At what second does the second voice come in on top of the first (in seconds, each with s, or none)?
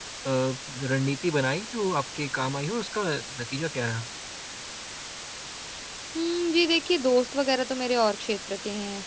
none